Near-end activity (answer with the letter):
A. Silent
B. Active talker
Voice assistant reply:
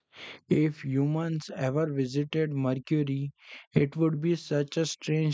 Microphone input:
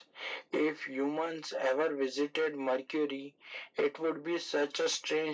A